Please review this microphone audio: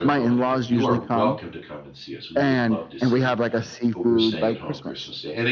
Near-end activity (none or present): present